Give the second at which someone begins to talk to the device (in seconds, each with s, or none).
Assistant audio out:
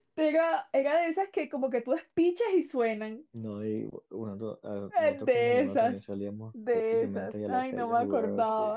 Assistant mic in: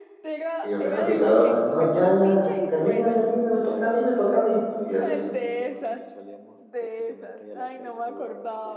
0.6 s